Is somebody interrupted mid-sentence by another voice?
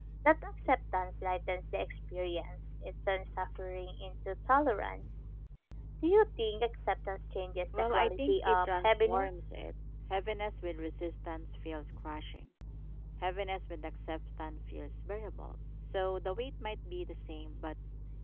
Yes, from 7.7 s

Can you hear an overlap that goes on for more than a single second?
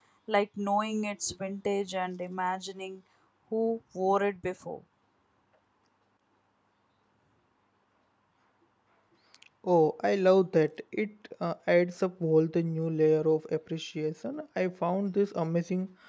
No

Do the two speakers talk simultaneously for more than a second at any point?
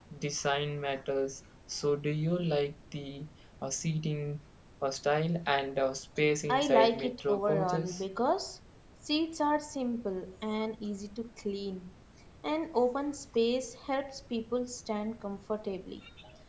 Yes, from 6.5 s

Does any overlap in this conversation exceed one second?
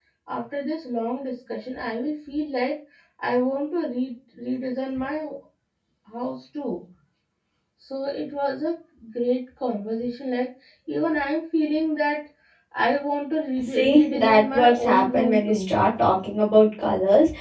Yes, from 13.8 s

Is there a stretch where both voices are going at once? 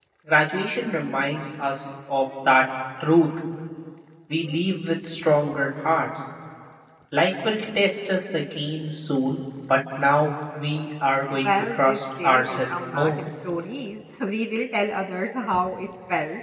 Yes, from 11.4 s

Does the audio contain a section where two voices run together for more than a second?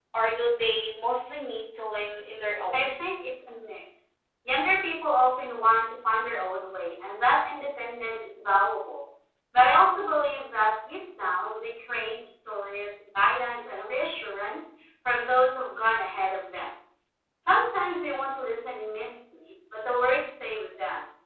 No

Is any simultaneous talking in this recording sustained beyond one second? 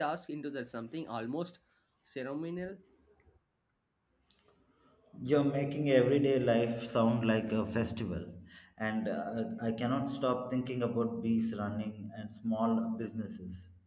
No

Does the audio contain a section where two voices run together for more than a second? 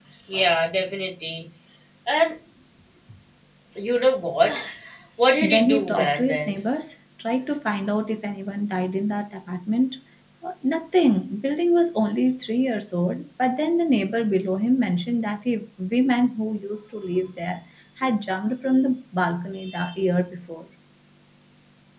Yes, from 5.4 s

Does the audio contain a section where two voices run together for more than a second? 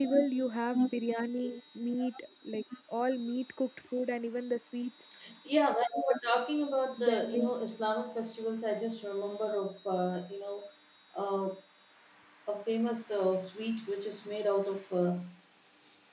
No

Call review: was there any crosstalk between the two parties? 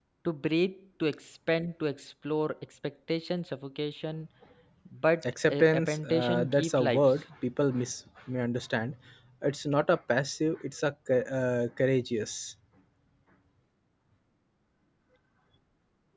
Yes, from 5.5 s

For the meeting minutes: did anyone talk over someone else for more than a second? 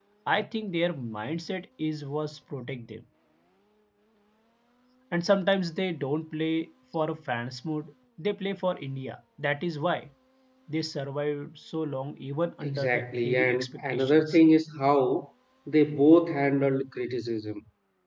Yes, from 12.6 s

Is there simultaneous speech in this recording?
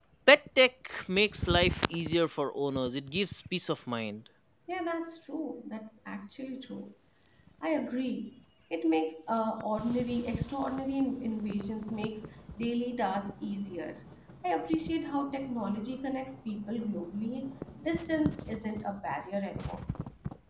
No

